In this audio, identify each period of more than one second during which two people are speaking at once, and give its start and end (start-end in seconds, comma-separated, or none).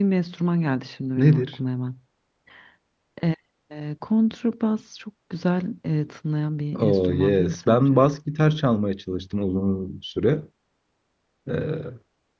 6.8-8.0